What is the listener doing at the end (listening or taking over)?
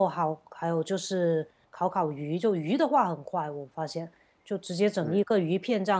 listening